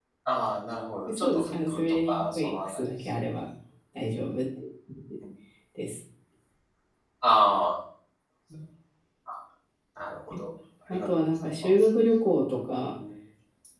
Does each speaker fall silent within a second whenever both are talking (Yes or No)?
No